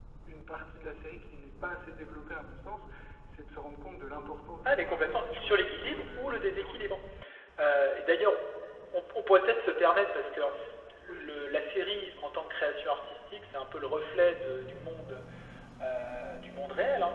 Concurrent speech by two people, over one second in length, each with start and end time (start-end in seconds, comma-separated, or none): 4.6-7.0